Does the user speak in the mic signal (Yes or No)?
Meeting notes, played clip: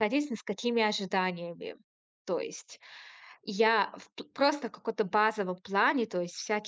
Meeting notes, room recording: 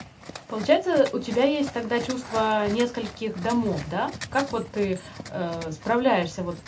Yes